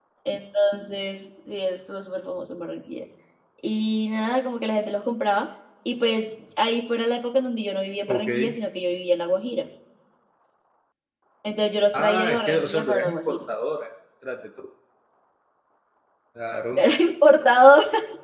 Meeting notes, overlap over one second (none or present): present